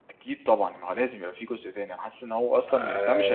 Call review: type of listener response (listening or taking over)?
listening